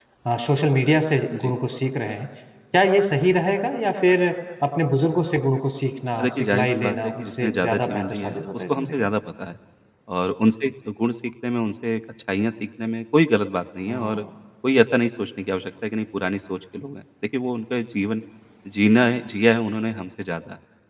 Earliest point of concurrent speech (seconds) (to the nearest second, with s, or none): 6 s